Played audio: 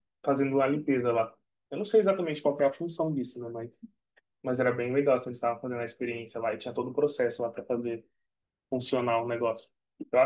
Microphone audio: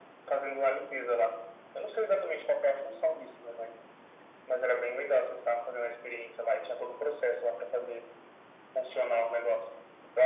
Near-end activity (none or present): none